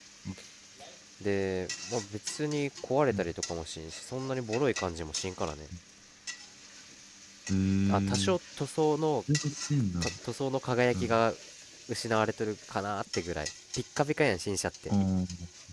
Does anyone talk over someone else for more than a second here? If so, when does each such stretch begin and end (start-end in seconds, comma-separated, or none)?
none